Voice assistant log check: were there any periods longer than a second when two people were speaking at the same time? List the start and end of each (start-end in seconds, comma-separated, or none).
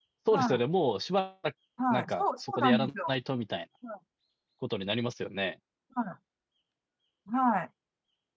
1.9-3.1